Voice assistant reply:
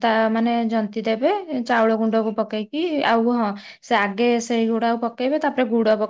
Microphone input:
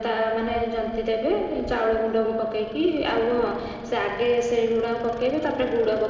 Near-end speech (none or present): none